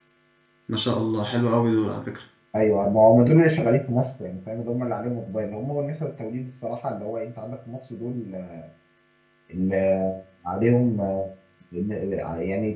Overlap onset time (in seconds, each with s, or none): none